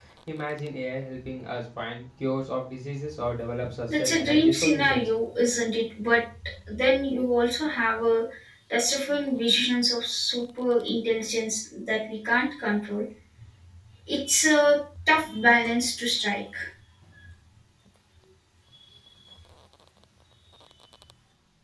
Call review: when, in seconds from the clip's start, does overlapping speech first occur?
3.9 s

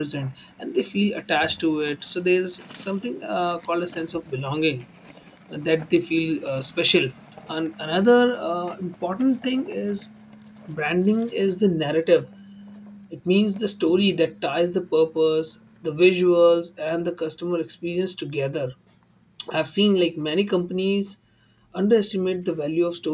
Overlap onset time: none

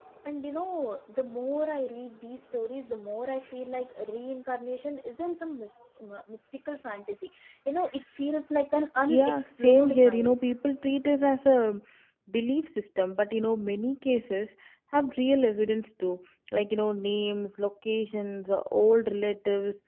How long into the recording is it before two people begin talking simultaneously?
9.1 s

